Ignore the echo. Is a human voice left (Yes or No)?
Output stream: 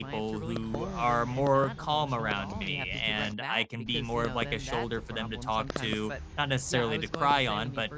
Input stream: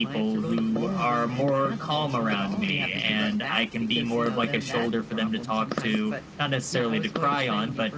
No